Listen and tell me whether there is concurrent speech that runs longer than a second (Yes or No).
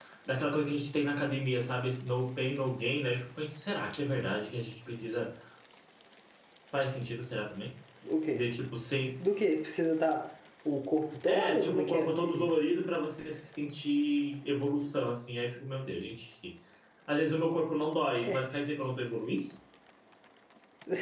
Yes